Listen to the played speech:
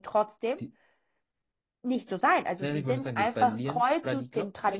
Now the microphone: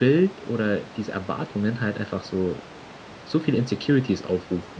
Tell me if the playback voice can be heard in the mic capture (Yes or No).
No